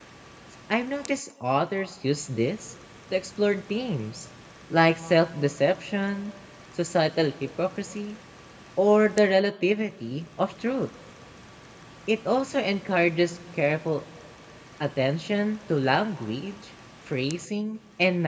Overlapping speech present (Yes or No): No